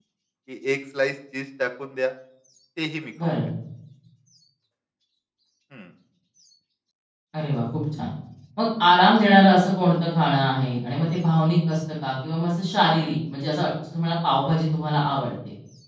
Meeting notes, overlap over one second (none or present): none